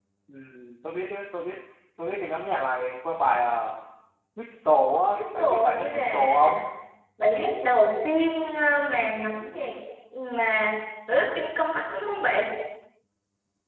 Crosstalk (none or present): present